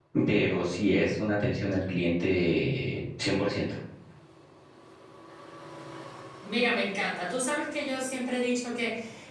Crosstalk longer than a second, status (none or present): none